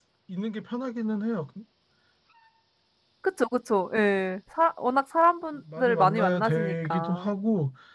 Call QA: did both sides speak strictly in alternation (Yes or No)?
No